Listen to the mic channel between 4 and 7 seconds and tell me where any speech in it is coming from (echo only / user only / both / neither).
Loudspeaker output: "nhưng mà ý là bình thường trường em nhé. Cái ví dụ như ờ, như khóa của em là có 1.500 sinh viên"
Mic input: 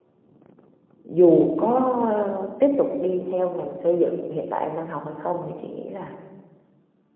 user only